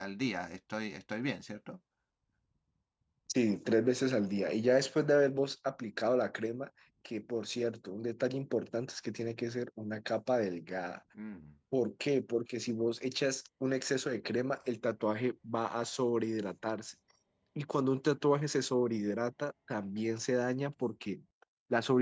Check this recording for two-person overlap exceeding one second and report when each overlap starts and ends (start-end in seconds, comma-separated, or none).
none